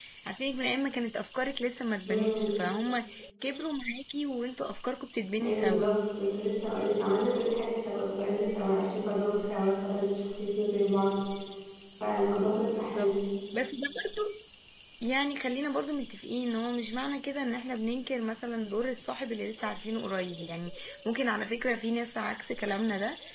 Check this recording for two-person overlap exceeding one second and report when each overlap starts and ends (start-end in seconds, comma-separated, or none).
none